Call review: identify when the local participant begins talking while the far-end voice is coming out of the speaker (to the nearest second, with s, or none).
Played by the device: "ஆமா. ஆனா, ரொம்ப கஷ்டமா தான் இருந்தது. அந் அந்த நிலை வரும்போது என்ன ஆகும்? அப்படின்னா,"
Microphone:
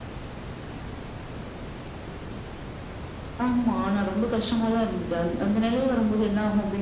none